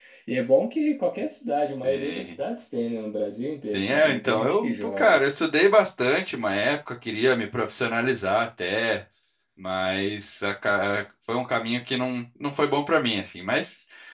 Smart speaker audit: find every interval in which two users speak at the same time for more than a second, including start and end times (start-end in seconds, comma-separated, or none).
3.7-5.2